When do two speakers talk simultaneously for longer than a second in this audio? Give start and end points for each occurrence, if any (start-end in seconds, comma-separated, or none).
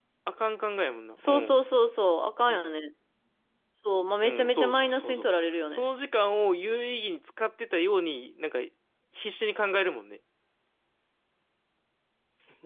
4.2-5.9